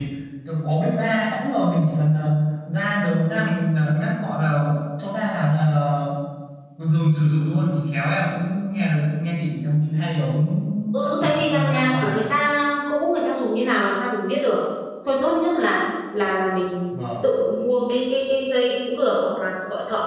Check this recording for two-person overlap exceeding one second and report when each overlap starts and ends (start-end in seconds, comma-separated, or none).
10.9-12.2